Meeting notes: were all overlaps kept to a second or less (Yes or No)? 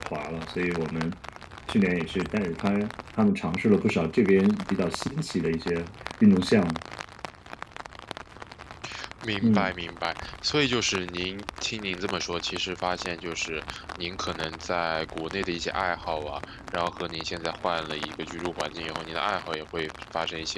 Yes